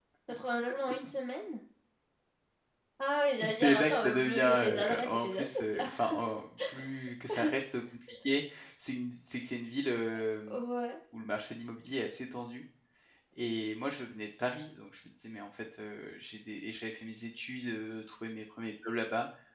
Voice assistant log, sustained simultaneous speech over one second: present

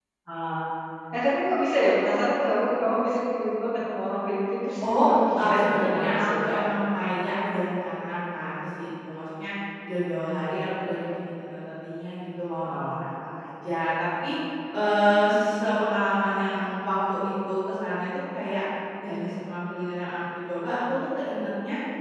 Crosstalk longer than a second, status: present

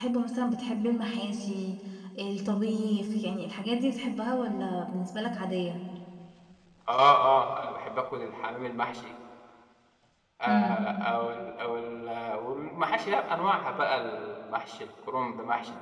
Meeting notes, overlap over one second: none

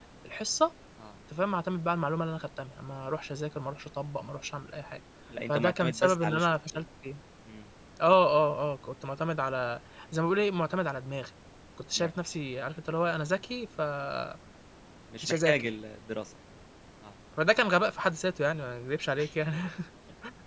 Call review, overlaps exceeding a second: present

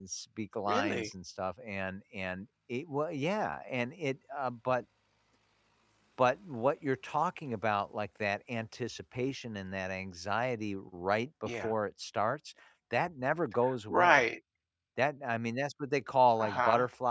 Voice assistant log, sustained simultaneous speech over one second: none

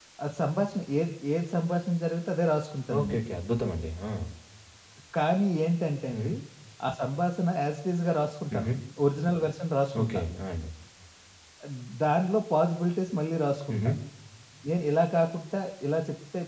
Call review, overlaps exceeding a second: none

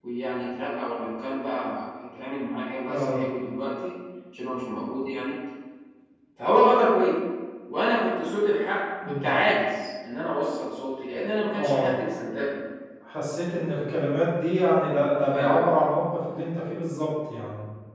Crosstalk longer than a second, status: none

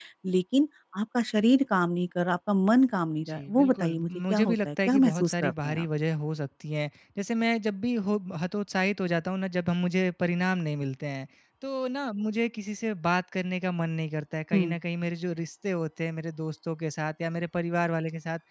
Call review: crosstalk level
present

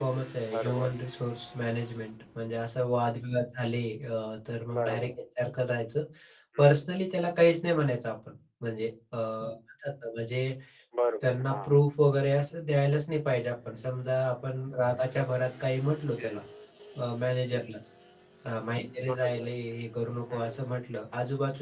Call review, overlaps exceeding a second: none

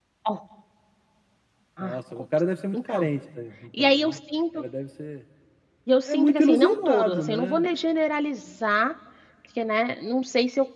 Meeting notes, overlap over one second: present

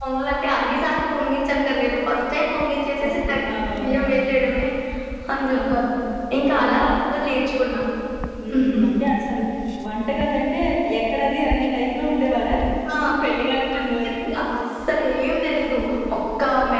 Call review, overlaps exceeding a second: present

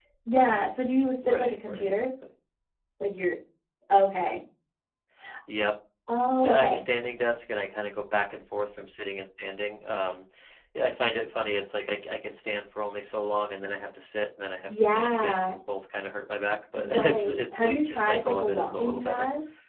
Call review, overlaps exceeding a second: present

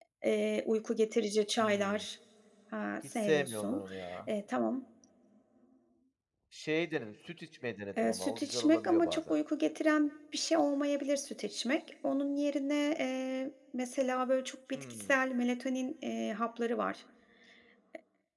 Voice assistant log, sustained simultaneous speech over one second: present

